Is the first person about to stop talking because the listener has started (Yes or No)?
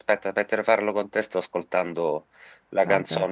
No